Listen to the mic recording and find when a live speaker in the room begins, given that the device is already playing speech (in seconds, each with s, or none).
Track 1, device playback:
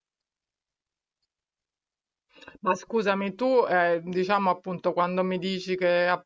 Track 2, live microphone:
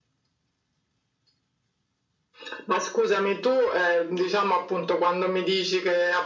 none